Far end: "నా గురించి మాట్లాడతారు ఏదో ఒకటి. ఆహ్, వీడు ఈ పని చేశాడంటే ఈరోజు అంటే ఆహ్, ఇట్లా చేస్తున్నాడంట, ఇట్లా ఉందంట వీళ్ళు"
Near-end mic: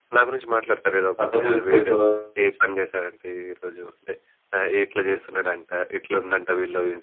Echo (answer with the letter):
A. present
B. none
A